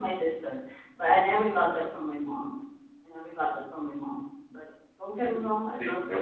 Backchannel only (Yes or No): No